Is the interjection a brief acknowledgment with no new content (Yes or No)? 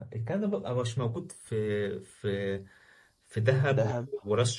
Yes